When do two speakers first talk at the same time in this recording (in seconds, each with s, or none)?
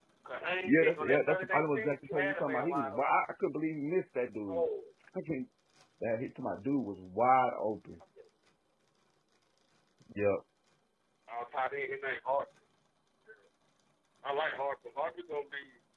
0.7 s